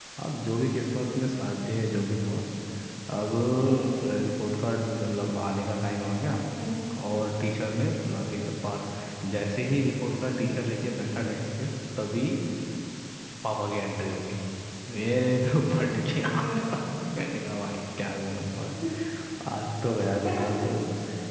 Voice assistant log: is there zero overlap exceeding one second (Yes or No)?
Yes